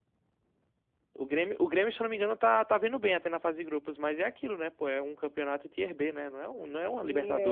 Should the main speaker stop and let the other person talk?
Yes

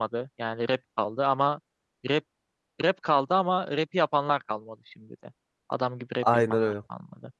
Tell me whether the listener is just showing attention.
No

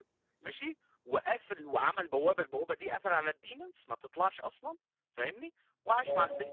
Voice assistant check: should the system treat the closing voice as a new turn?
No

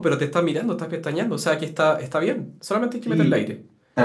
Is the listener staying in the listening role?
No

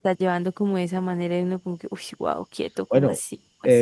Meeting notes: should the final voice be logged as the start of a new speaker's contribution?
Yes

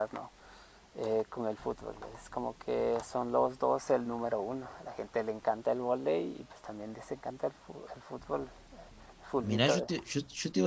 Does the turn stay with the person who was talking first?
No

